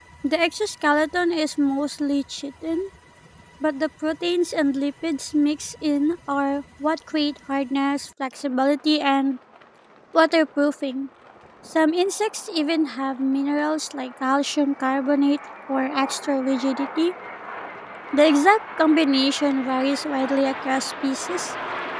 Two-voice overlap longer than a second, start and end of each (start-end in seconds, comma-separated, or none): none